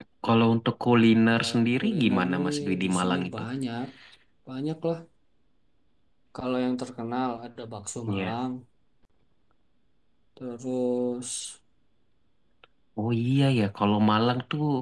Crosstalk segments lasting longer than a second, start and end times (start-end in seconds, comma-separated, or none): 1.4-3.3